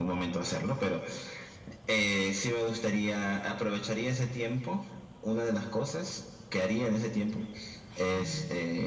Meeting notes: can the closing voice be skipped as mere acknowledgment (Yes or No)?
Yes